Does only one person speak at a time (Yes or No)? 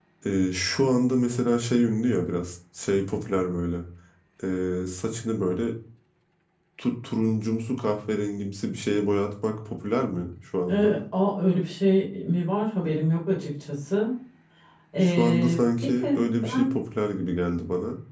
No